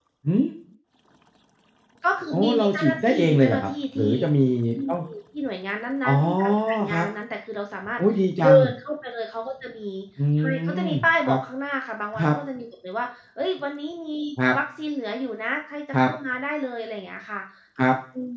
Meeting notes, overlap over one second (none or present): present